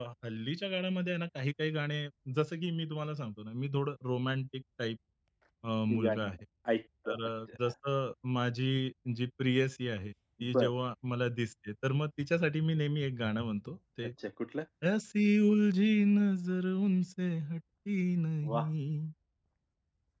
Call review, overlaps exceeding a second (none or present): none